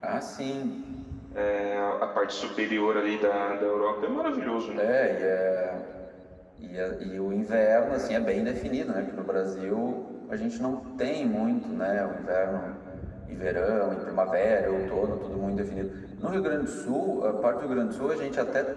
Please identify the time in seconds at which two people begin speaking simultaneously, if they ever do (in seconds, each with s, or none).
none